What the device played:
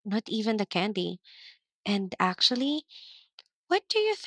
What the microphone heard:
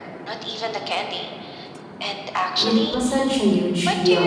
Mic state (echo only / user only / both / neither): both